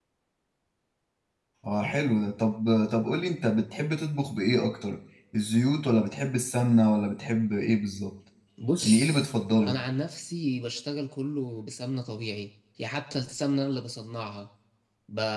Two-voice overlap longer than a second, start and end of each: none

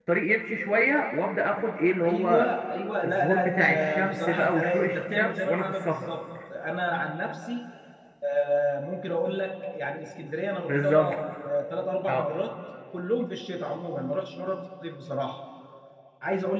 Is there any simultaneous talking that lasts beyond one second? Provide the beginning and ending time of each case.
3.0-6.1

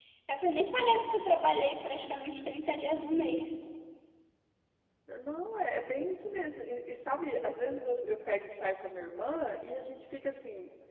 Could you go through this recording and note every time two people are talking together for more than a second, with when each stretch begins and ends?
none

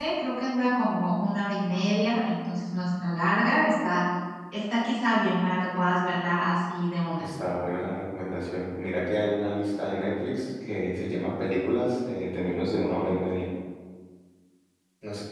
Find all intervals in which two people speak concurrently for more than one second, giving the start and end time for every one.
none

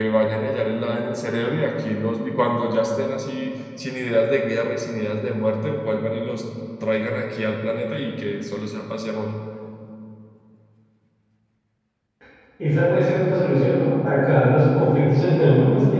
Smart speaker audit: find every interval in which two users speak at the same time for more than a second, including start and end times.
none

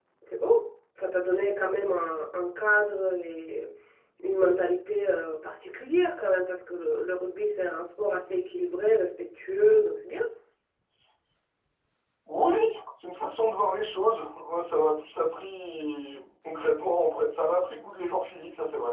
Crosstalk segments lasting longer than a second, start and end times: none

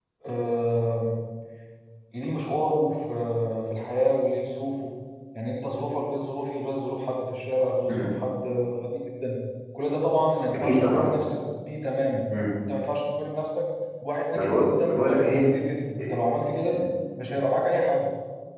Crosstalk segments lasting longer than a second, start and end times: 14.3-15.5

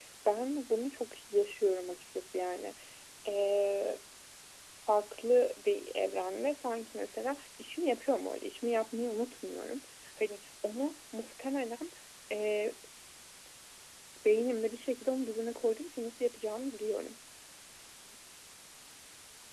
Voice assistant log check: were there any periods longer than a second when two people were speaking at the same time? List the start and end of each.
none

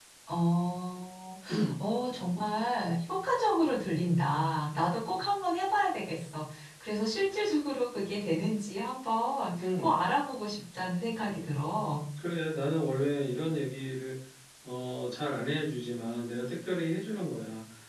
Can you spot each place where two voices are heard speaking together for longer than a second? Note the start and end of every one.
none

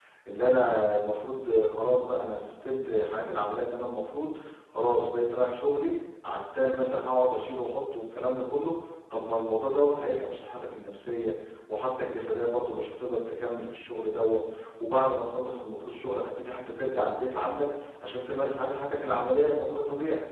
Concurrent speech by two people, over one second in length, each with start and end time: none

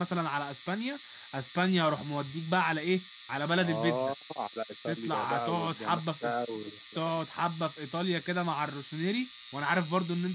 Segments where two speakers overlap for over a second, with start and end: 4.9-6.3

